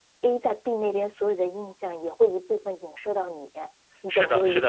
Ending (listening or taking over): taking over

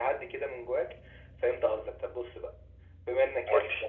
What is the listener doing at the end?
listening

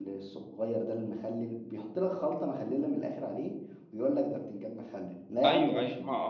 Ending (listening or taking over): taking over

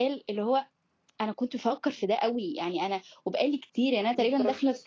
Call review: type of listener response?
listening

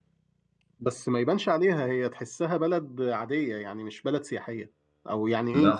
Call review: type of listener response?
listening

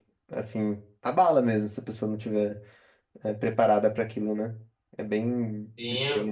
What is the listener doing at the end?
taking over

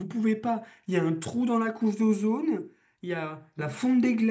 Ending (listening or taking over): listening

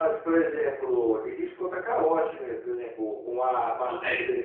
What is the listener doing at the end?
listening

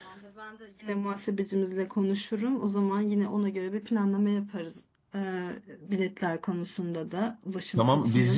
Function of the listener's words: taking over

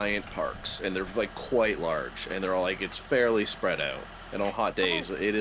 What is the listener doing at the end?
listening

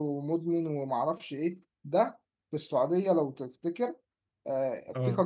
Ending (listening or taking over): listening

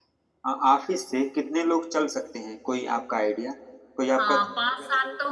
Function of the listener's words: taking over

